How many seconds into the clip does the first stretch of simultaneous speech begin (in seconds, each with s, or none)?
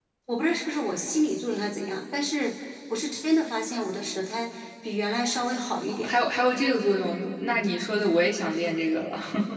none